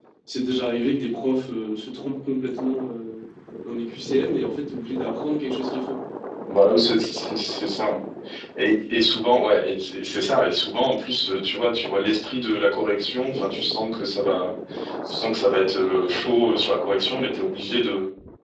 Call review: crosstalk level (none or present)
none